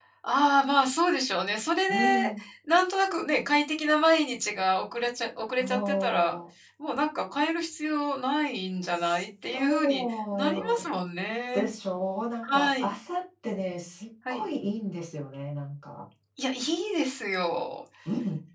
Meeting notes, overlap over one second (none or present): present